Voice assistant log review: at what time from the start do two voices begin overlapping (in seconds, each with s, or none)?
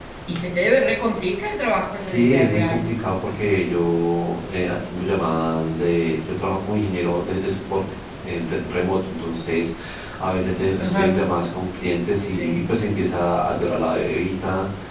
1.9 s